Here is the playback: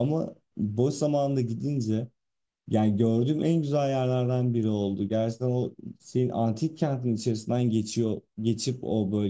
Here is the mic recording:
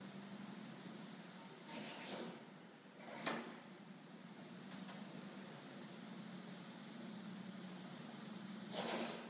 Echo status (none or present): none